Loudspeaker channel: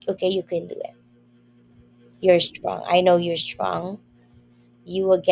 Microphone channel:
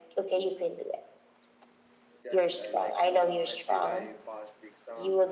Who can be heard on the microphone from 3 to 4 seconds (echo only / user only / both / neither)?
both